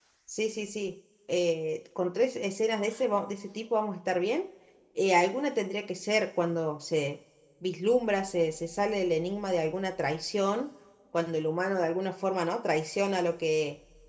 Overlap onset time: none

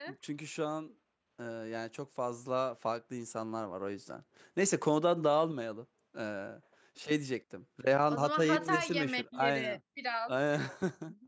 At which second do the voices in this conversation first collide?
8.1 s

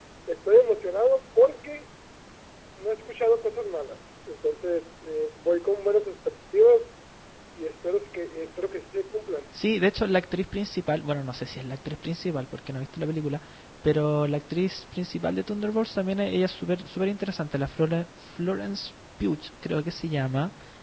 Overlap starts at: none

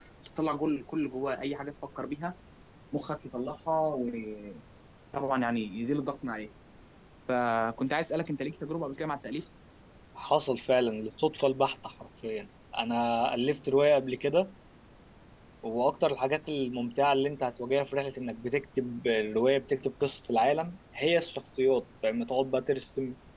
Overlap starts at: none

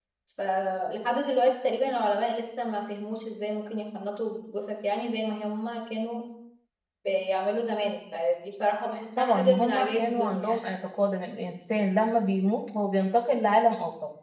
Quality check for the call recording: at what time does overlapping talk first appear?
9.2 s

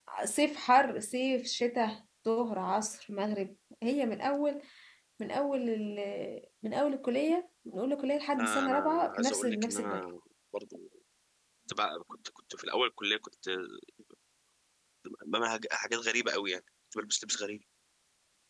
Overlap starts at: 8.3 s

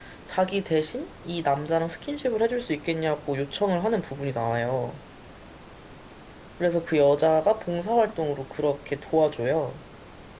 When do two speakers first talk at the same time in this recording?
none

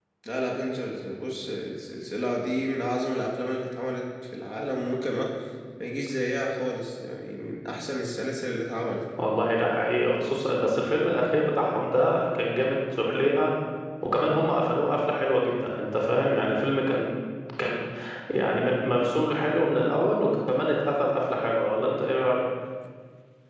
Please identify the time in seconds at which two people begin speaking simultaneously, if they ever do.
none

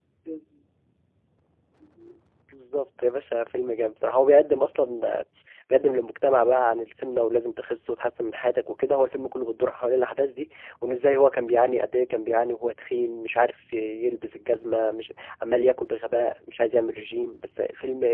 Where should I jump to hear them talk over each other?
none

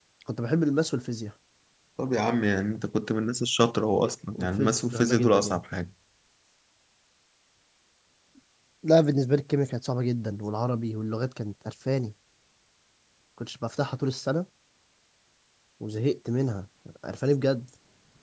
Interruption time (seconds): 4.3 s

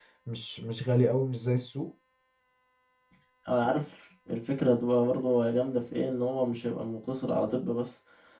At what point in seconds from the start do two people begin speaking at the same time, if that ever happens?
none

